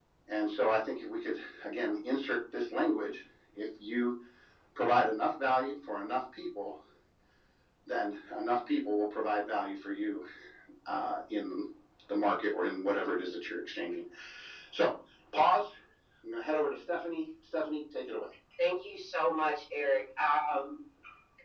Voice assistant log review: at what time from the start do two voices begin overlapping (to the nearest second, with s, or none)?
none